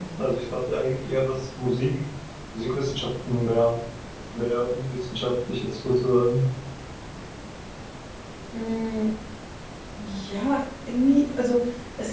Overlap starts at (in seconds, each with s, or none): none